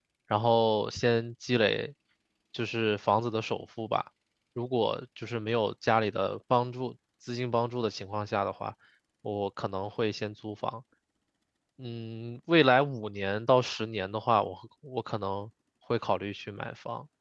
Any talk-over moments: No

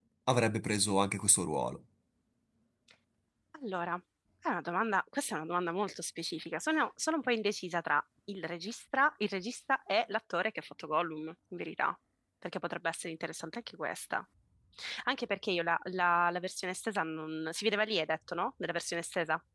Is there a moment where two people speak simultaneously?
No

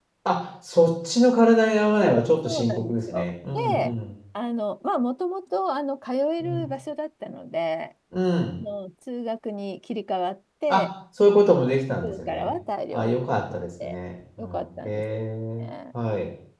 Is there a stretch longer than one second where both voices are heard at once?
Yes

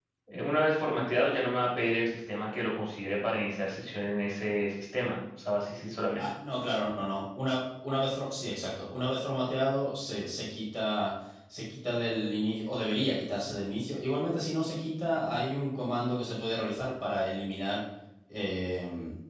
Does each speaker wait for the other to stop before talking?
Yes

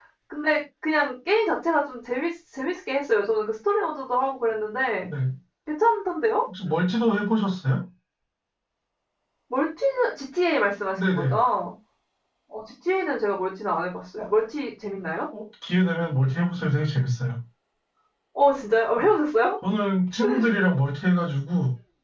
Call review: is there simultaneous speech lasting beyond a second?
No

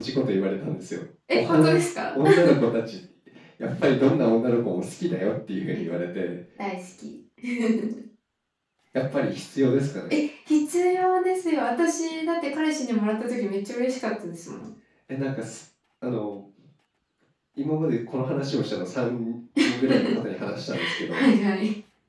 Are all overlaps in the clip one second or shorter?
Yes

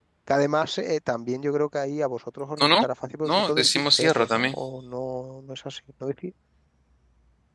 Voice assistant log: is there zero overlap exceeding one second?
No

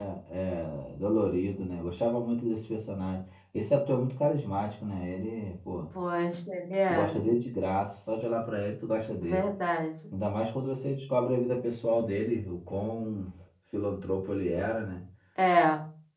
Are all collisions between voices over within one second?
Yes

